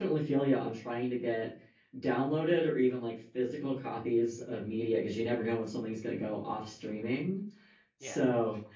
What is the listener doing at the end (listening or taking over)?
listening